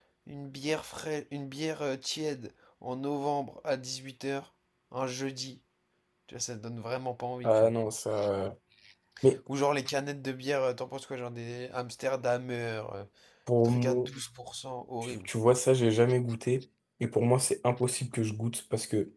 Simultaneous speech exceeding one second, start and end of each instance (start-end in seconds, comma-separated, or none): none